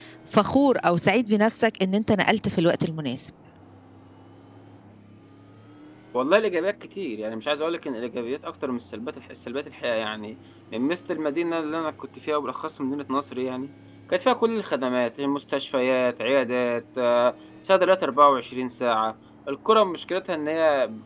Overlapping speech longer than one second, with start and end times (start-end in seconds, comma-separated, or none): none